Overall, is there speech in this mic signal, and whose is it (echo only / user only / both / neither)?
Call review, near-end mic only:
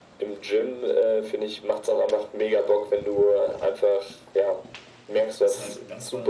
both